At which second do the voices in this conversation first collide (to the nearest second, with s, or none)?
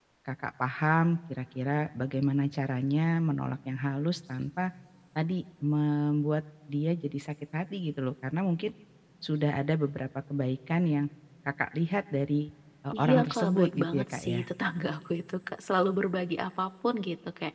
13 s